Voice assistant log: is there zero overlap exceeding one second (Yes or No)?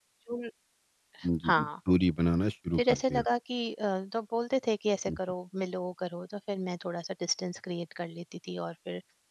Yes